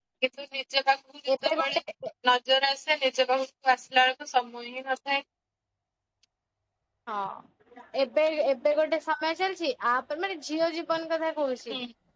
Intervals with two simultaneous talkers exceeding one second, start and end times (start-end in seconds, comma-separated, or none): none